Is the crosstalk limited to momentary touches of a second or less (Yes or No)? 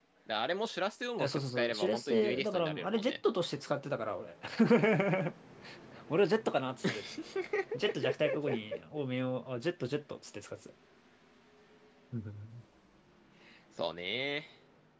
No